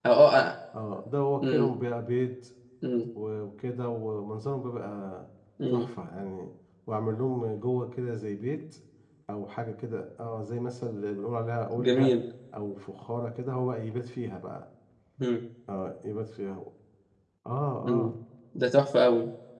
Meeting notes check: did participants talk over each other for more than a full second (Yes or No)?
No